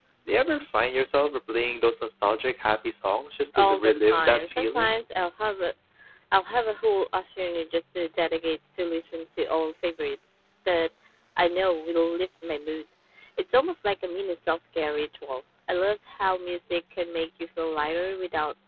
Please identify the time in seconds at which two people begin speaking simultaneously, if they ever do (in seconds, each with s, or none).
3.5 s